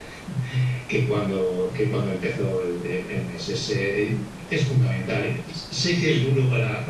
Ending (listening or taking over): listening